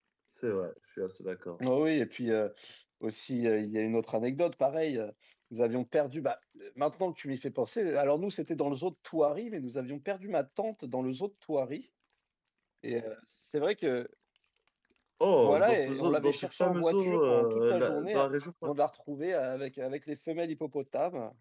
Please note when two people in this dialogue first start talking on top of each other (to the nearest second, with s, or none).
15 s